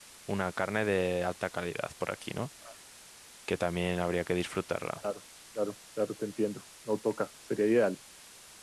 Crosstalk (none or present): none